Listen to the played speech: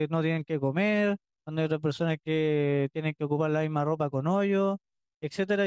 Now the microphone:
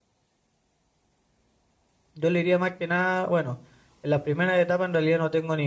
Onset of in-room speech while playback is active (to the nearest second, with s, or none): 2 s